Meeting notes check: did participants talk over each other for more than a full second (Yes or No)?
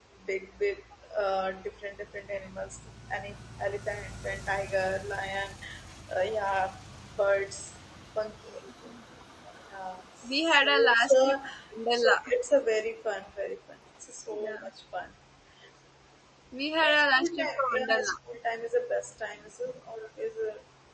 Yes